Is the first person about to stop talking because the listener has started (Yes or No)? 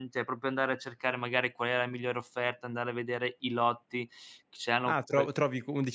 Yes